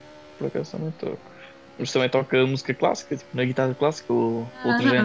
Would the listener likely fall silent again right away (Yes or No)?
No